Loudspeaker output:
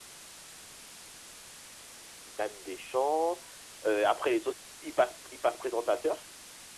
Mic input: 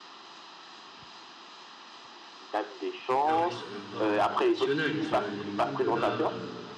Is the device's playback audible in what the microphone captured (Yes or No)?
Yes